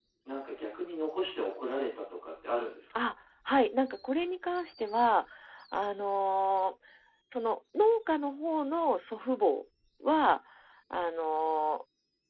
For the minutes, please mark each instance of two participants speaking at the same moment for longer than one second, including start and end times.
none

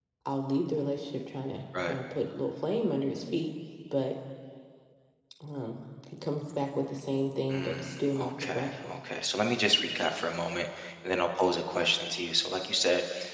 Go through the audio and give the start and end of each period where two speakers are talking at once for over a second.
7.5-9.0

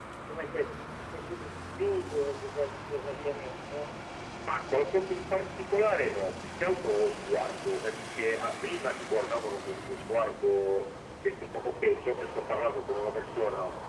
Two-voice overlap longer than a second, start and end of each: none

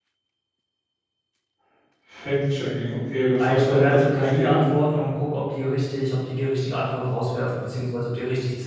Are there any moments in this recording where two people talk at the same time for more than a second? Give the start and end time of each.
3.4-4.6

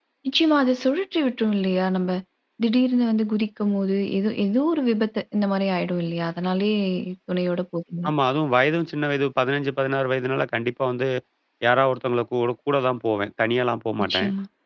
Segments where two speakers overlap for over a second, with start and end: none

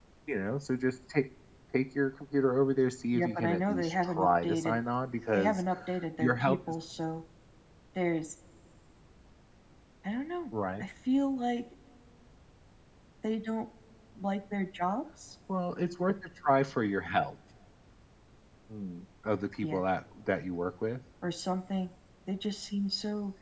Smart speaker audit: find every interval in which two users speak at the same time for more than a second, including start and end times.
3.1-4.8

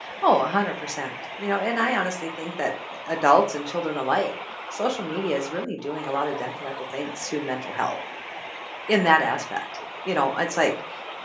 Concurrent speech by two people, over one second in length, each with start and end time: none

